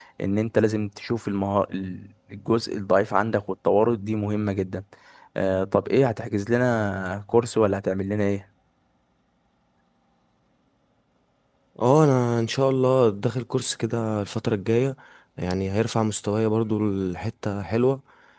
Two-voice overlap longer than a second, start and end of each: none

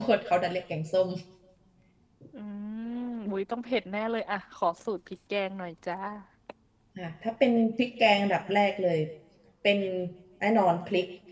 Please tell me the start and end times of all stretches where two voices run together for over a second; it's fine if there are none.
none

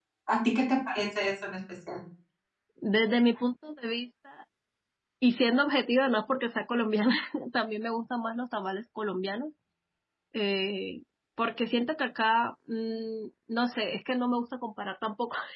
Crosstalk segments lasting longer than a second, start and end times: none

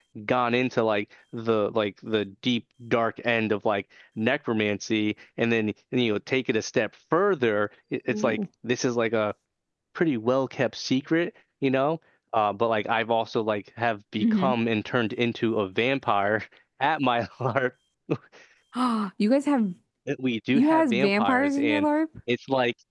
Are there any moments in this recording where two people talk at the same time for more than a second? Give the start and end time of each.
20.5-21.8

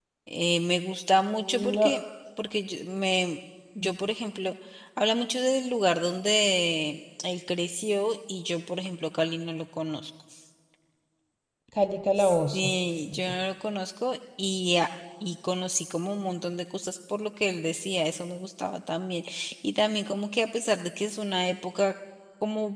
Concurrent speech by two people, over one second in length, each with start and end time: none

